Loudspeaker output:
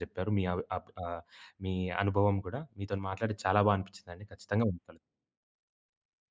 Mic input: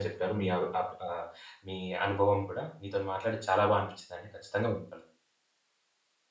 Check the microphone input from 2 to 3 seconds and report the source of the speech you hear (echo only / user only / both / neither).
echo only